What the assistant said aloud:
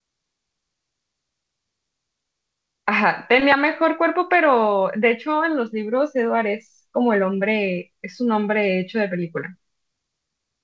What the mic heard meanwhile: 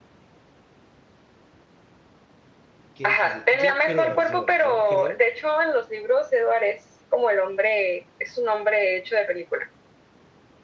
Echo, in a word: present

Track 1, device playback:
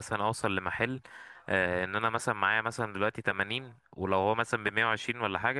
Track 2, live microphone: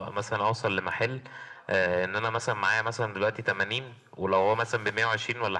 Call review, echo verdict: present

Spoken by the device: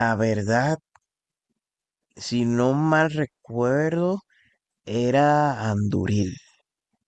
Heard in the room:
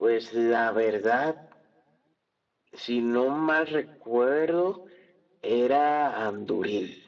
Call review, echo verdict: present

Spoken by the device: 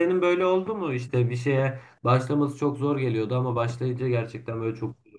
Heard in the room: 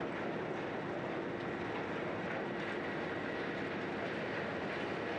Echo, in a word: none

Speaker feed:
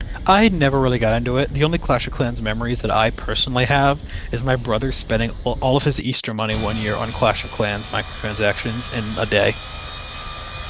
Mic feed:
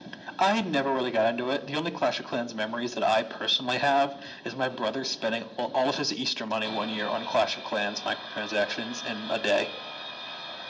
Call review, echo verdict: present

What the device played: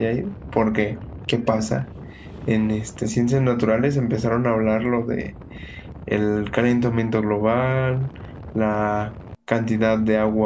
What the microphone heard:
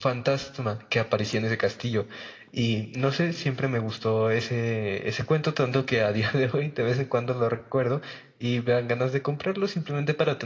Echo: none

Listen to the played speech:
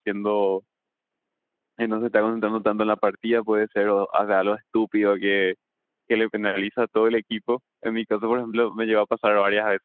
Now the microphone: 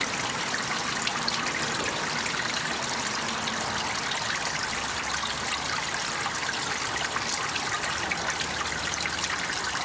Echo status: none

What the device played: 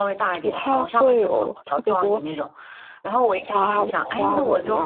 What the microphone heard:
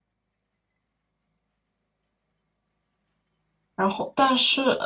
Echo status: none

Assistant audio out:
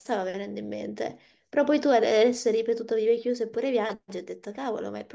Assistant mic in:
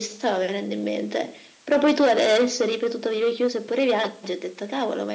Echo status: present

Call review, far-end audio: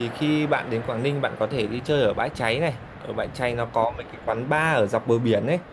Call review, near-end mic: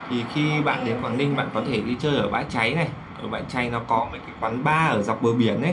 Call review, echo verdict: present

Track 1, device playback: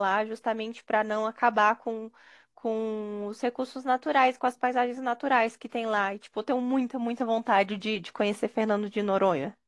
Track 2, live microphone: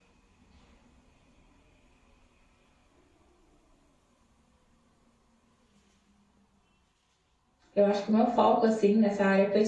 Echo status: none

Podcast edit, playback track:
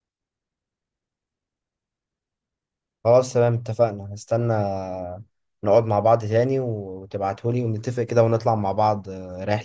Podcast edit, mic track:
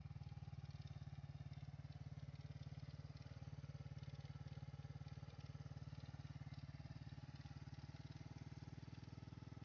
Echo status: none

